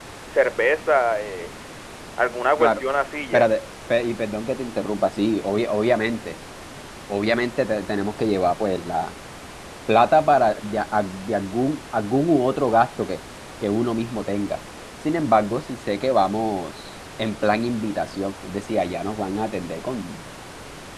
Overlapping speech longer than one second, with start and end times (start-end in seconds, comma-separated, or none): none